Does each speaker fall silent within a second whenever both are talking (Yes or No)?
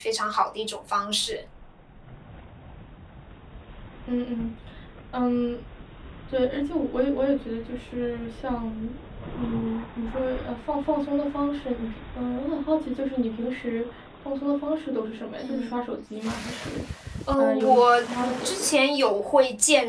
No